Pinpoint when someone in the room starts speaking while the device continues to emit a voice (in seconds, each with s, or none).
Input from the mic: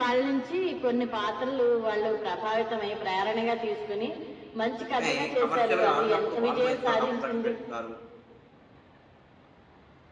4.9 s